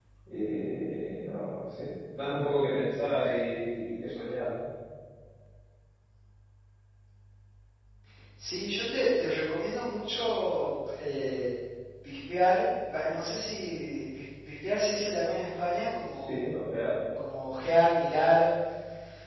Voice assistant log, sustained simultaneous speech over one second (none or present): none